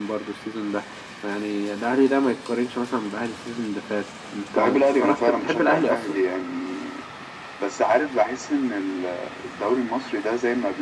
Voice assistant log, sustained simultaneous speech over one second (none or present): present